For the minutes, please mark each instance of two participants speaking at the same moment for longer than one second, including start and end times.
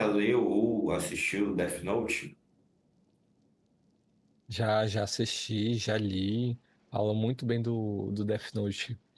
none

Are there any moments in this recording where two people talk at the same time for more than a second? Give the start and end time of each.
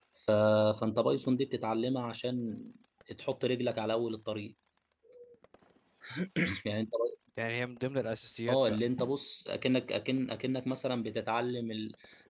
none

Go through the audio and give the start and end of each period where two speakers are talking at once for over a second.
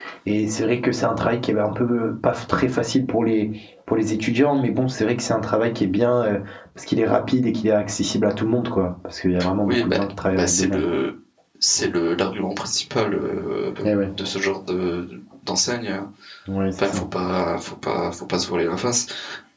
9.6-10.9

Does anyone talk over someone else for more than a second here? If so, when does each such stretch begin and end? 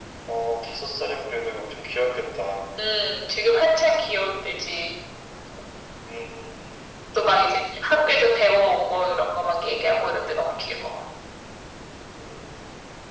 none

